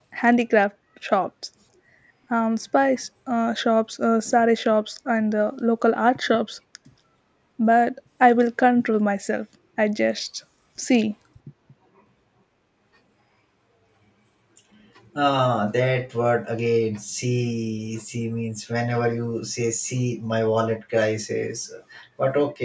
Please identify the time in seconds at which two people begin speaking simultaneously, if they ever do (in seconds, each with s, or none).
none